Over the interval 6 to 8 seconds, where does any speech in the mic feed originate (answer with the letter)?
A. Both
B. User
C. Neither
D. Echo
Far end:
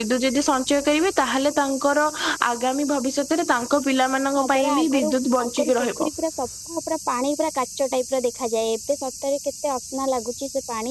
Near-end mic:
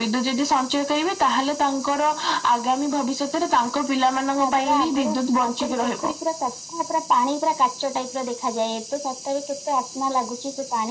D